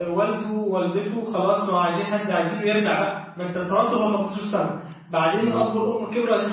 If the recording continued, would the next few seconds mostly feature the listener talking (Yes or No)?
No